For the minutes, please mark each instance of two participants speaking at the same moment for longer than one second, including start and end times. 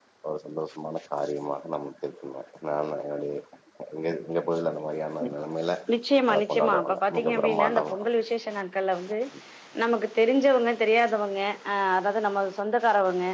6.3-8.0

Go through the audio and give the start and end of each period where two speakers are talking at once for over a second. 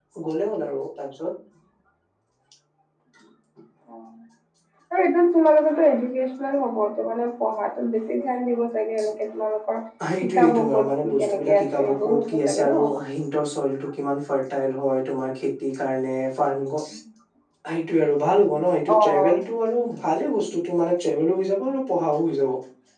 10.2-12.8

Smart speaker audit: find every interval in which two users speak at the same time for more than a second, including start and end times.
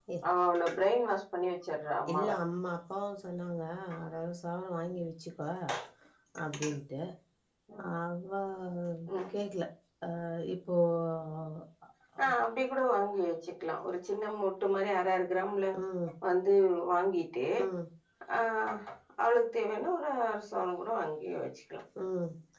none

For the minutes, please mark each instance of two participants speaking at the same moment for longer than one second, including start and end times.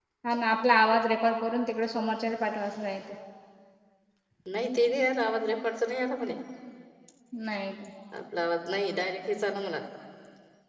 none

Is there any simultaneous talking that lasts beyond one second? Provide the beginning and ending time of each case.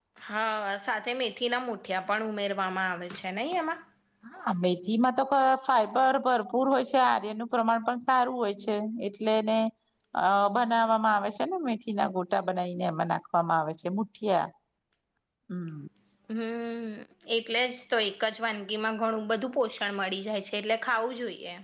none

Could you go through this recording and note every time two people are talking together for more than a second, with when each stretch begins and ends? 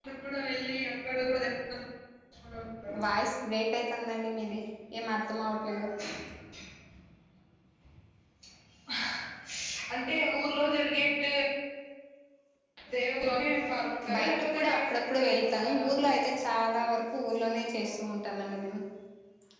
14.1-15.8

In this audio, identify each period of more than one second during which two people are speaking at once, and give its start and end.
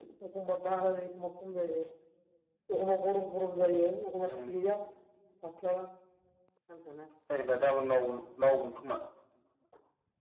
none

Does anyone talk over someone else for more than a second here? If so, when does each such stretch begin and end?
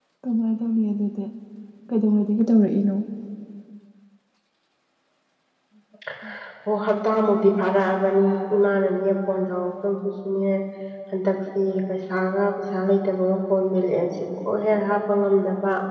none

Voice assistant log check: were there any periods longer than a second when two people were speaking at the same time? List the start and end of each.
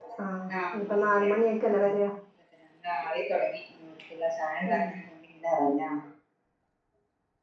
none

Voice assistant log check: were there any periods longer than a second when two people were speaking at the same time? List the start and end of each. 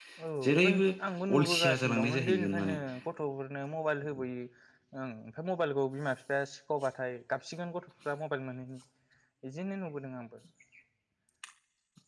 1.4-2.8

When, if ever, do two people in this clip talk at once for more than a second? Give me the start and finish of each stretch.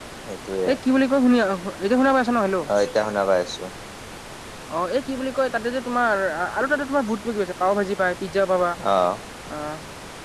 none

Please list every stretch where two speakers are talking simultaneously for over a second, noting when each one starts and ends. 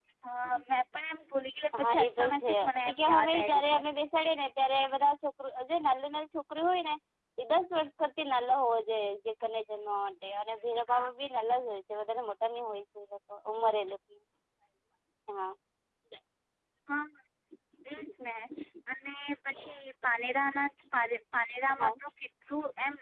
1.8-3.8

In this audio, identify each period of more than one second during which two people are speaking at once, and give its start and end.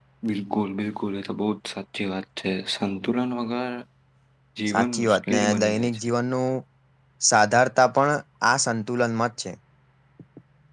4.7-6.0

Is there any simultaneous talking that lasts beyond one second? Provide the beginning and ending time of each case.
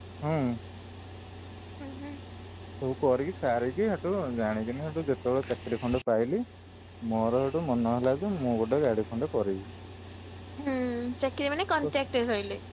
none

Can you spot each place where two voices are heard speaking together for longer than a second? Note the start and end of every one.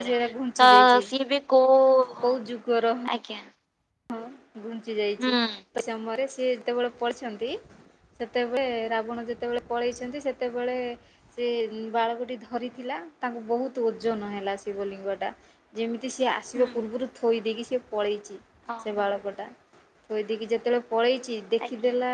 none

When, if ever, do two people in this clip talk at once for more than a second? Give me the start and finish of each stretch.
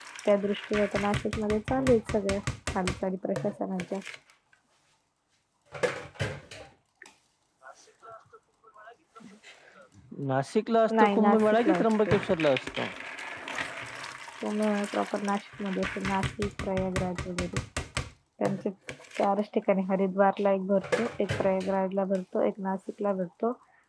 10.9-12.2

